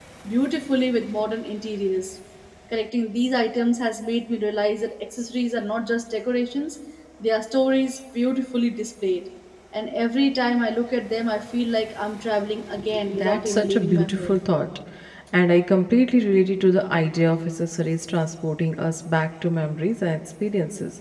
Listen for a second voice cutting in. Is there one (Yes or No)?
Yes